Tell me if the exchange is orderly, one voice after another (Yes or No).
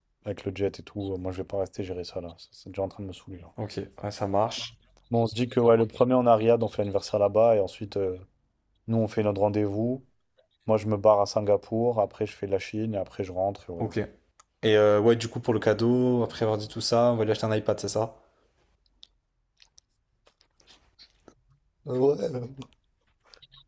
Yes